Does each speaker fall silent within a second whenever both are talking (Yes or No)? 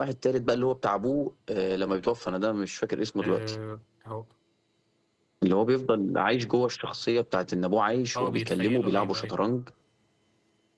No